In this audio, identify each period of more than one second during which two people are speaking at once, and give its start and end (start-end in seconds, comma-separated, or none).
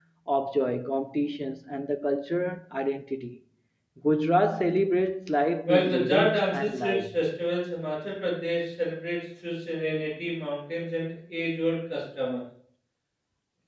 5.7-7.1